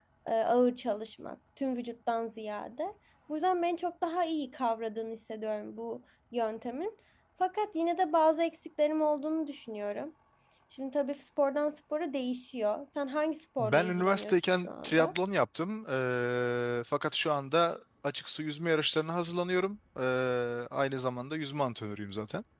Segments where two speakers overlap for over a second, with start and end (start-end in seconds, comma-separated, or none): 13.6-15.1